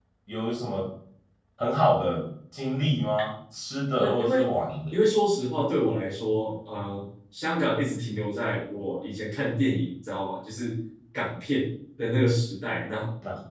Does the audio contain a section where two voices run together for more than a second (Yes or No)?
No